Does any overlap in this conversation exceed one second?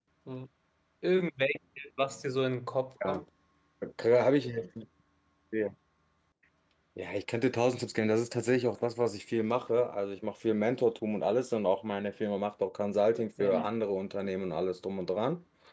No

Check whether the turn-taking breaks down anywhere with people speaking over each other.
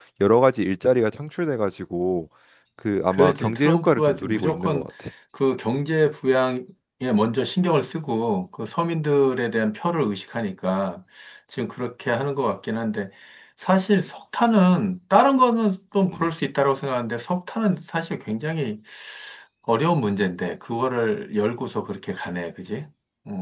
Yes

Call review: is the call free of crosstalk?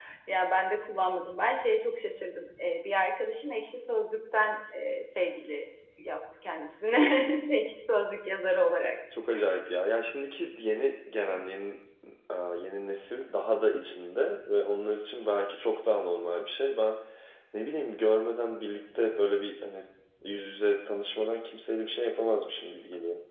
Yes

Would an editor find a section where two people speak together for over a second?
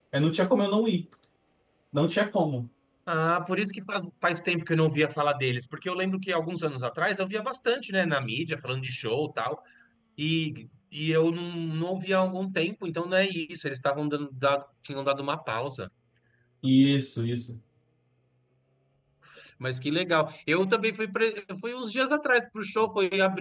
No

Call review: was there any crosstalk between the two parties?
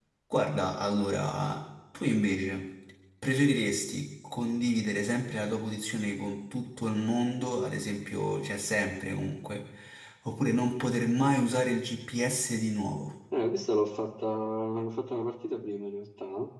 No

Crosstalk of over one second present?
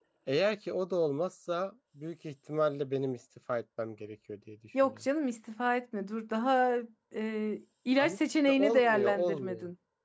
Yes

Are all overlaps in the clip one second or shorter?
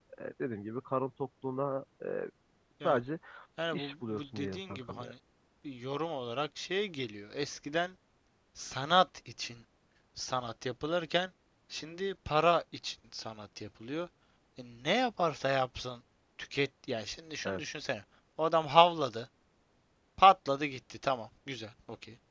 No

